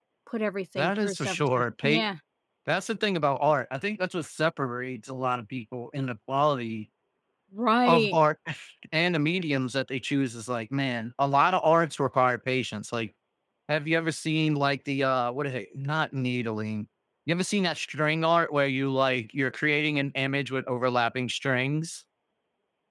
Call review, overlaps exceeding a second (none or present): present